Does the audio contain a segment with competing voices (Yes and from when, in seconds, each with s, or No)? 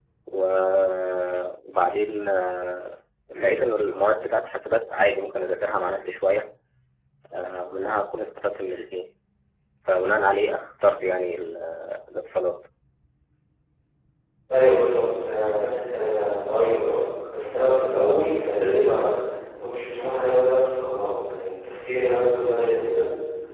No